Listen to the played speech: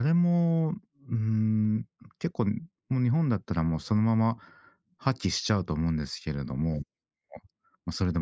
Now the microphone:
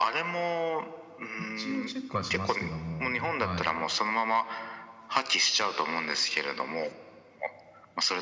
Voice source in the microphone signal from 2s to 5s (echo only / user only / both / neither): both